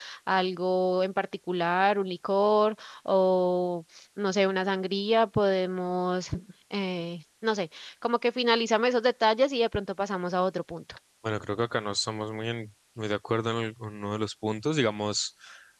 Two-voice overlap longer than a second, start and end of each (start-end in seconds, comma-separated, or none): none